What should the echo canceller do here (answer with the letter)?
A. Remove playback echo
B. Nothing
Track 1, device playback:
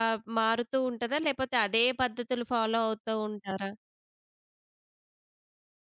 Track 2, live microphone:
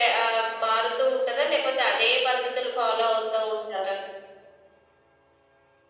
A